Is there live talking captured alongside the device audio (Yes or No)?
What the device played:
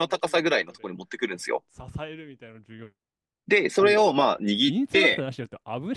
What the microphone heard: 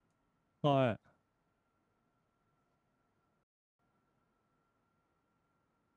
Yes